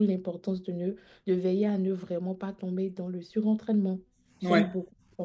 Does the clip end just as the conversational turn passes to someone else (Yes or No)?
No